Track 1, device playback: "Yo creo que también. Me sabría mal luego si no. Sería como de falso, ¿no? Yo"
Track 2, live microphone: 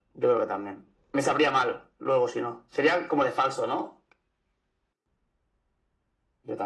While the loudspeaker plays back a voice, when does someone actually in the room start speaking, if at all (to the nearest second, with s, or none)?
none